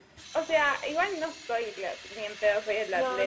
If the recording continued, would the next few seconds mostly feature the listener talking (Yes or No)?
Yes